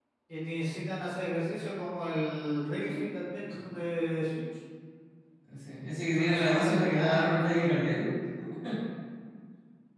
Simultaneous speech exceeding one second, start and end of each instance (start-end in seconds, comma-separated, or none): 6.1-8.0